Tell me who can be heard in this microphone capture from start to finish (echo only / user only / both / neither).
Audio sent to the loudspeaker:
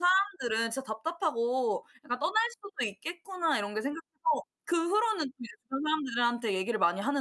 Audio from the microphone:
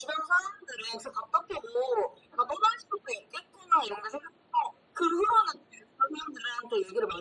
echo only